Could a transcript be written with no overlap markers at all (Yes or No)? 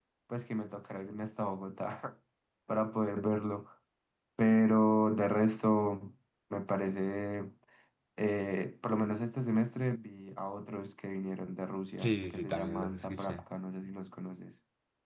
No